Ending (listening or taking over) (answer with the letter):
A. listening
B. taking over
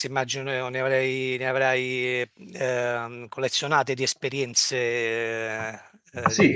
B